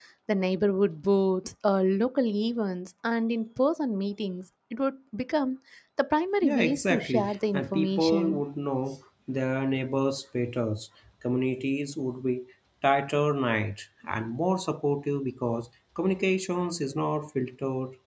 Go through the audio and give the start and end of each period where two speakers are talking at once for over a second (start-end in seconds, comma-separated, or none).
6.4-8.4